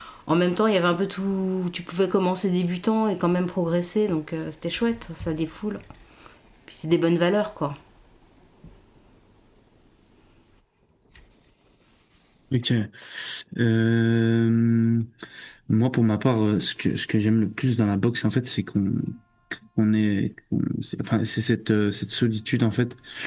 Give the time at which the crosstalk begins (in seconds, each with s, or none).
none